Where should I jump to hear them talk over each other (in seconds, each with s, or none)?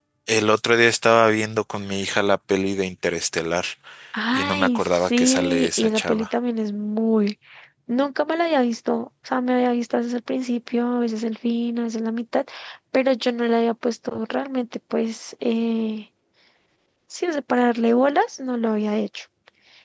4.3 s